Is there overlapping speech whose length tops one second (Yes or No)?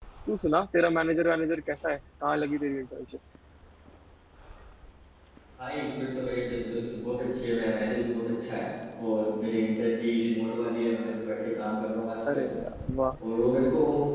No